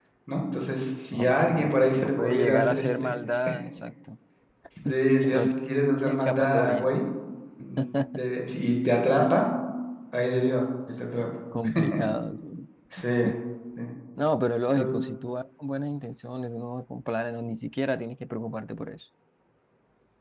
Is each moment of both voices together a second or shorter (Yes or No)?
No